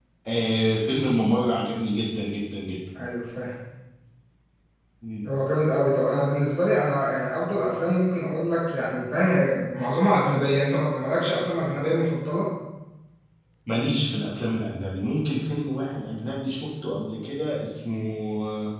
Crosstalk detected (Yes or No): No